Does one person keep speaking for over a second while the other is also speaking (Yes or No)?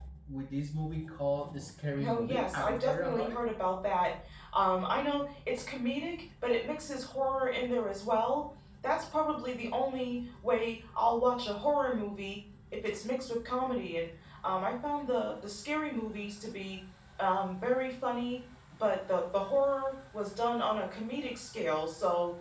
Yes